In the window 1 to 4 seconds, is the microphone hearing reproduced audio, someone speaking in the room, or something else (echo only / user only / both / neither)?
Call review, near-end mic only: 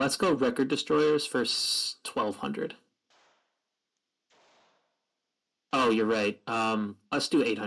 echo only